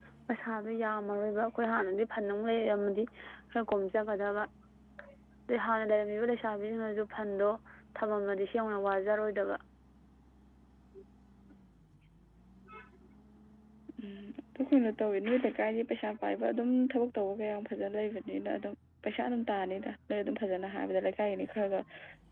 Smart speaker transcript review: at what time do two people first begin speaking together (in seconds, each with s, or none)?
none